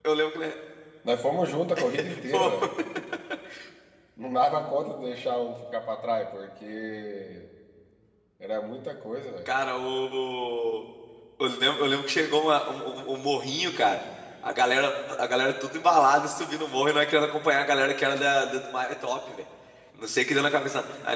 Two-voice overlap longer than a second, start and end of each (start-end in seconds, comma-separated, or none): none